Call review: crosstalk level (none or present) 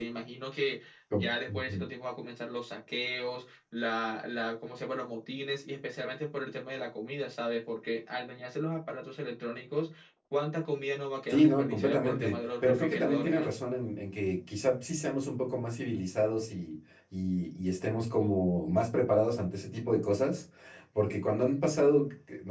present